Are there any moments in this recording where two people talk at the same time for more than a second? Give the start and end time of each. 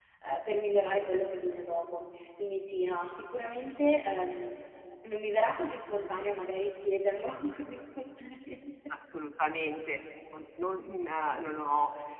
none

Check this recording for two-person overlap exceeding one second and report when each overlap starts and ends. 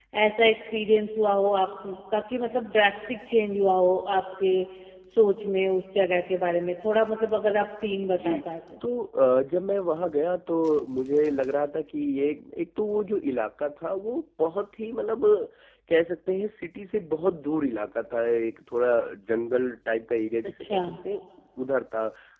none

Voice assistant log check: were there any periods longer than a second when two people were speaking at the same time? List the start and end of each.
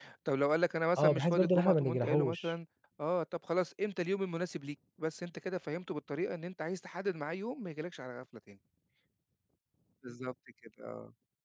1.0-2.5

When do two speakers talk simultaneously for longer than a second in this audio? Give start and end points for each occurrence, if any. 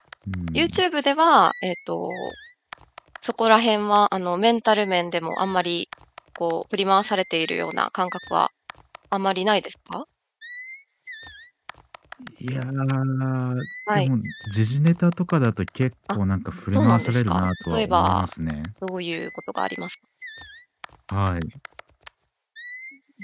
16.7-18.3

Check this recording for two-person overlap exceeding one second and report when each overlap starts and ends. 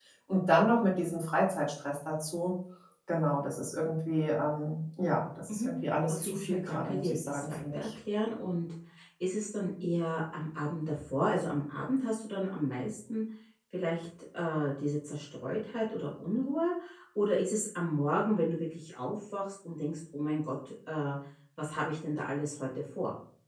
6.1-7.9

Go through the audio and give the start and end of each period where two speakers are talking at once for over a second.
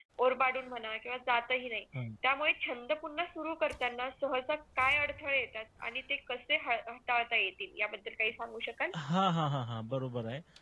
none

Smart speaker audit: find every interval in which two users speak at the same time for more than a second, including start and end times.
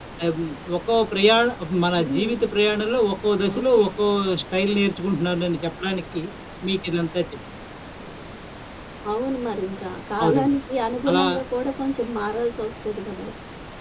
none

